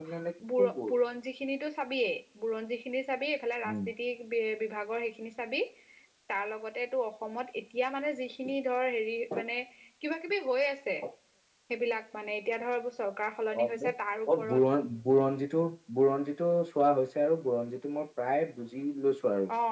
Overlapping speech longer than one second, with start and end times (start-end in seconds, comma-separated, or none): none